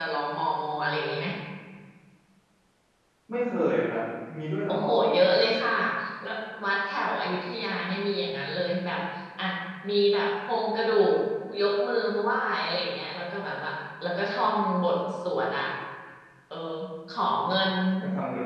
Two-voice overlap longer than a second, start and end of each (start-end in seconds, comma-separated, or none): none